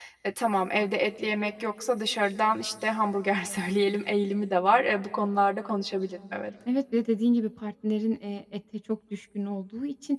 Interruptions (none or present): none